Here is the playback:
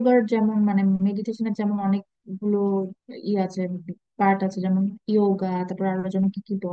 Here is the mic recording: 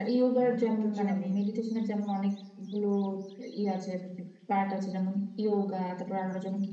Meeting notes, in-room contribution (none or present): present